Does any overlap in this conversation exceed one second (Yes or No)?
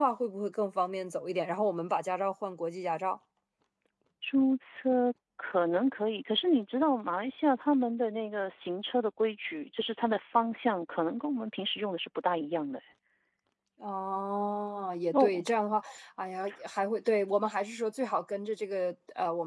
No